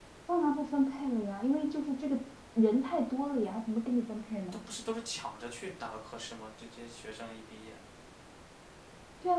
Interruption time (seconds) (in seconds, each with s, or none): none